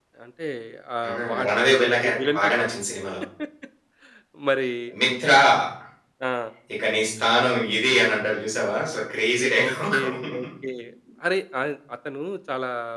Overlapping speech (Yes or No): Yes